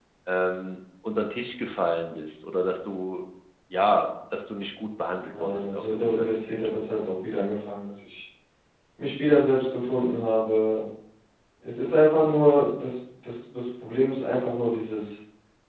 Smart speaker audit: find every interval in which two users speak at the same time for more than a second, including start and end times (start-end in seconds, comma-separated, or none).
5.4-6.7